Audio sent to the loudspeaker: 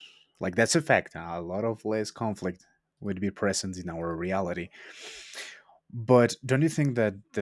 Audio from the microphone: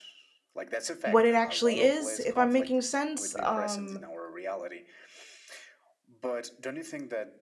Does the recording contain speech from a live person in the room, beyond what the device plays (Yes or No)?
Yes